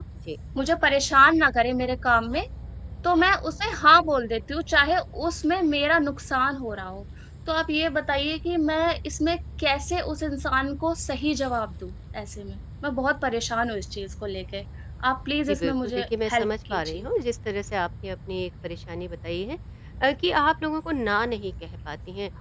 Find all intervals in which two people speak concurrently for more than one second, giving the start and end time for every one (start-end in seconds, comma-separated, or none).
15.5-17.0